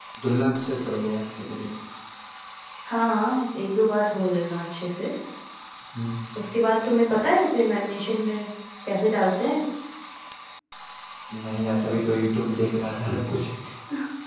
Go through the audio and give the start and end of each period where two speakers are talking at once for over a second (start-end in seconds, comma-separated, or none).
none